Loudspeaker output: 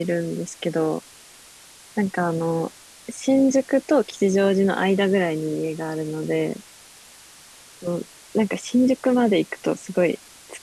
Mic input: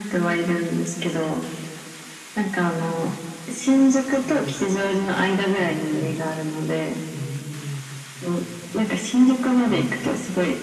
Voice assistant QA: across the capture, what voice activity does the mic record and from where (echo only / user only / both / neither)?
both